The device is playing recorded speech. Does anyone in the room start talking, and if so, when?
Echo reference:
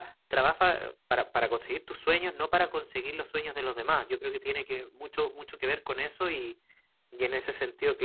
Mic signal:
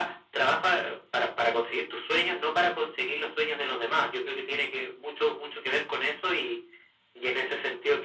none

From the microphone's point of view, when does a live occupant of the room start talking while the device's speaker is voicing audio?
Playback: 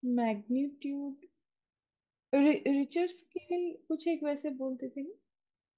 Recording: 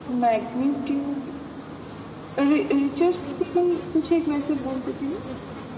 none

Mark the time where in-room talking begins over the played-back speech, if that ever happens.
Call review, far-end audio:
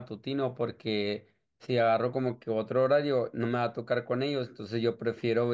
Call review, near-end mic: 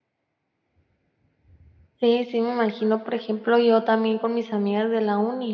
1.9 s

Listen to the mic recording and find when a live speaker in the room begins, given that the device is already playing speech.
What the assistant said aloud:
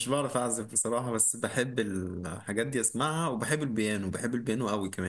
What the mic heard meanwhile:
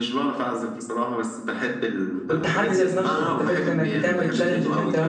2.3 s

